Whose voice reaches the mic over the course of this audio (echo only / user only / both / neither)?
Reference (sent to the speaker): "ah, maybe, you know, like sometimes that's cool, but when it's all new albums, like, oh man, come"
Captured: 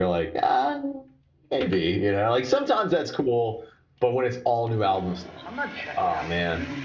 both